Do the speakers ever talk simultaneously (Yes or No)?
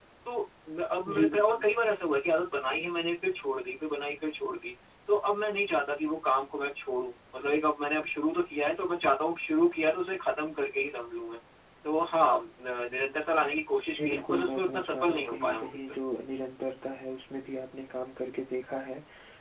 Yes